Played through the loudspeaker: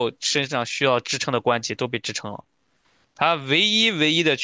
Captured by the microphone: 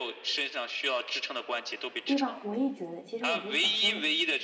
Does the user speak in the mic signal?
Yes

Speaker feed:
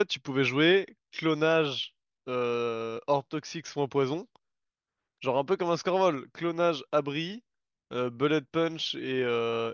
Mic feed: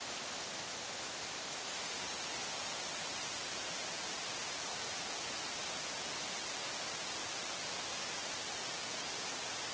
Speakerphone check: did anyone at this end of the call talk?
No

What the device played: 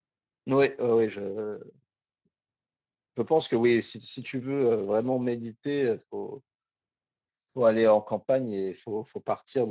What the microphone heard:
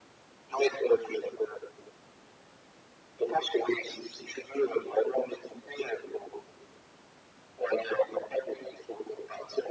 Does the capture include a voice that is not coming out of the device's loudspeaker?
No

